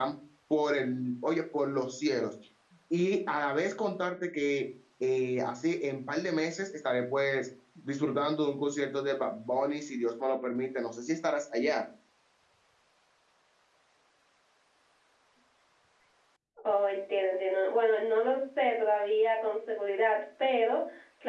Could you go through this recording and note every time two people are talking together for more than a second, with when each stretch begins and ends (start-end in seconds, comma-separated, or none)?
none